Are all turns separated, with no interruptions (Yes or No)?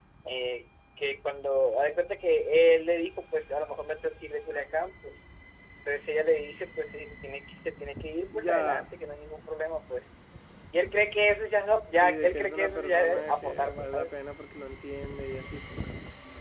No